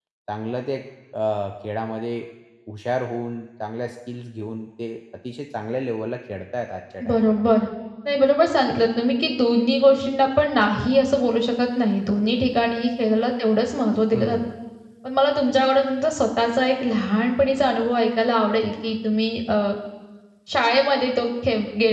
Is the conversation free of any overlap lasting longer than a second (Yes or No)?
Yes